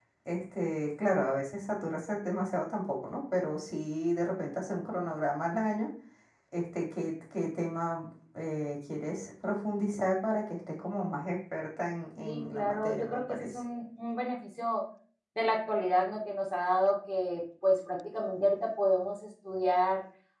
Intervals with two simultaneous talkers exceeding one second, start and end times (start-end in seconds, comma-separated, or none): 12.2-13.6